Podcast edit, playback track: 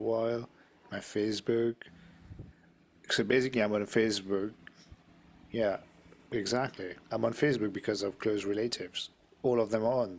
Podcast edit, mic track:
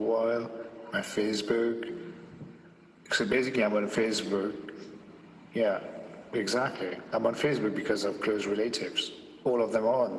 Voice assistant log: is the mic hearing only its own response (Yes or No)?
Yes